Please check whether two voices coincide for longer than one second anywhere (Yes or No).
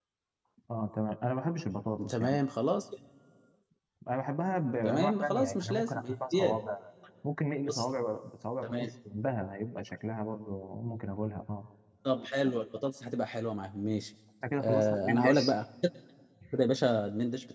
Yes